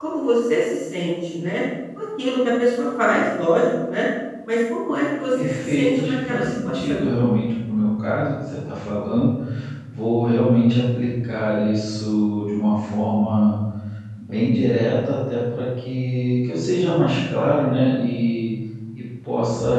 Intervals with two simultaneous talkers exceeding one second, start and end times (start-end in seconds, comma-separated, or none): 5.4-7.0